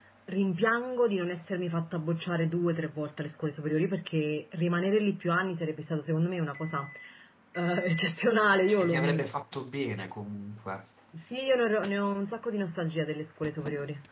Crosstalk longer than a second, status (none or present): none